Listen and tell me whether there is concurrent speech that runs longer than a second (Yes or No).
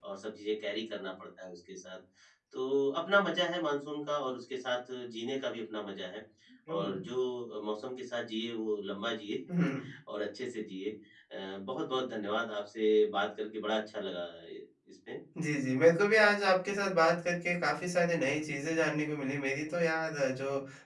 No